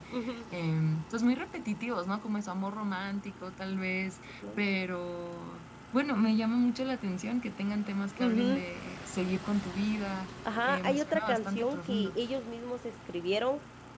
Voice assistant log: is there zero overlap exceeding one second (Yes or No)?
No